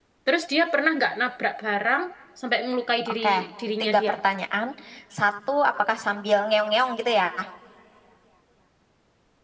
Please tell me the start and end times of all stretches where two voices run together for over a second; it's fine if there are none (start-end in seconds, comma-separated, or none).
none